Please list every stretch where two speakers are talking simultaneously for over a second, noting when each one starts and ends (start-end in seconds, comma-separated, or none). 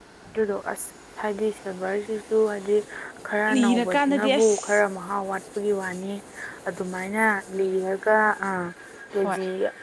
3.5-4.8